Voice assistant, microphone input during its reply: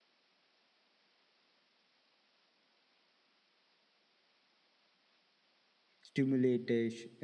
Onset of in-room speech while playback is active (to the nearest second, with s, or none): 6 s